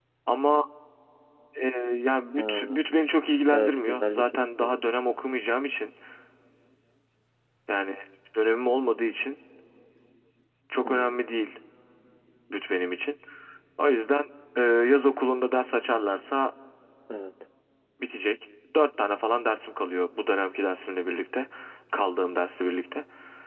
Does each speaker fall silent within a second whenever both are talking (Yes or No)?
No